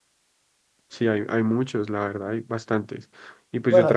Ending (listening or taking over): taking over